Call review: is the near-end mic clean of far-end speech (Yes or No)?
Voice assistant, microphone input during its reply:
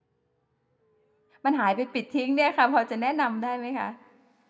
Yes